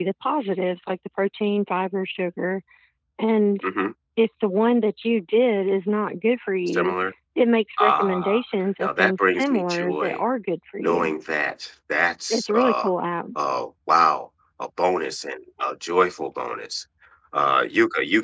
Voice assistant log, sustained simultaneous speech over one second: present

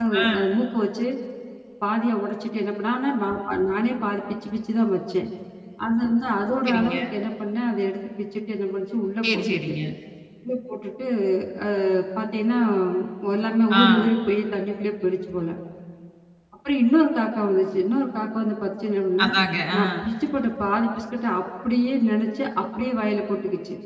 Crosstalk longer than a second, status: none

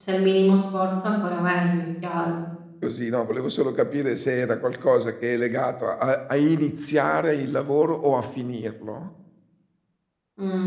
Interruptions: none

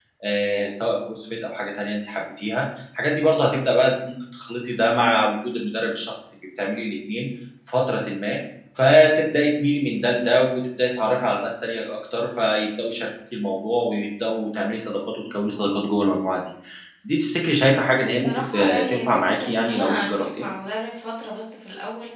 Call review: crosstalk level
present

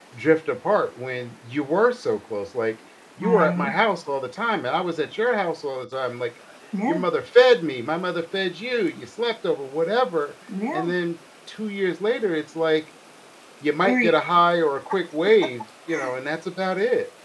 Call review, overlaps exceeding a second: none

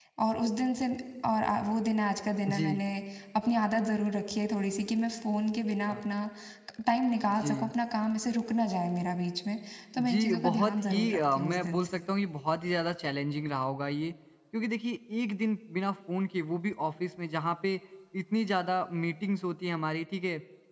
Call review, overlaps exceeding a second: present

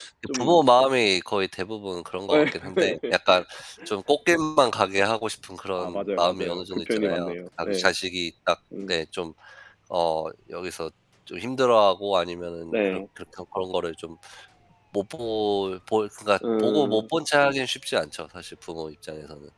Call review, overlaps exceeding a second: present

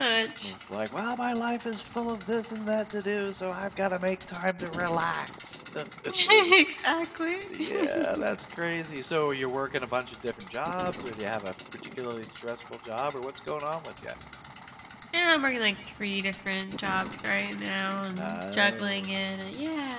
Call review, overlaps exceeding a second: present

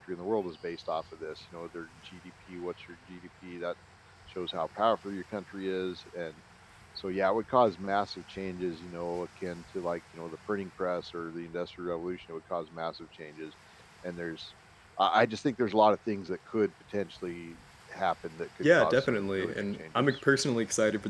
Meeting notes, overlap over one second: present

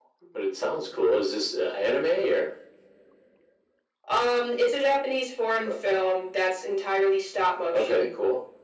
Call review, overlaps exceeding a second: none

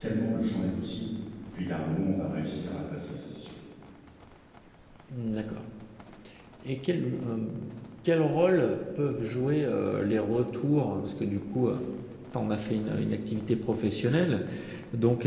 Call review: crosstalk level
none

